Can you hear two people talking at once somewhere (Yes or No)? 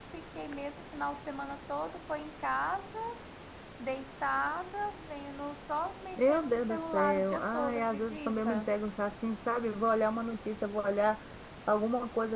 Yes